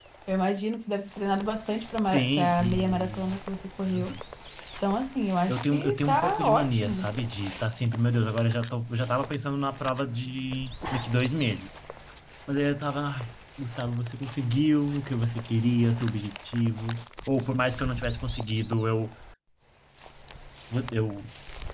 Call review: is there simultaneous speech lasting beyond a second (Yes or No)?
Yes